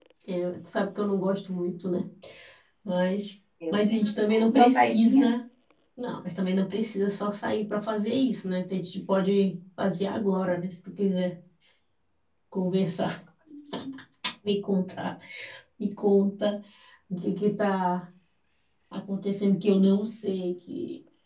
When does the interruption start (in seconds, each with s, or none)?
3.7 s